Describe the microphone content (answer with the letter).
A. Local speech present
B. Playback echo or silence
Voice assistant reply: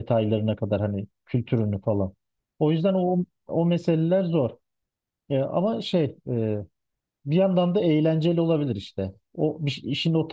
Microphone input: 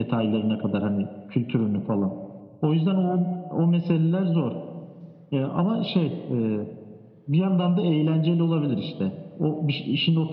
B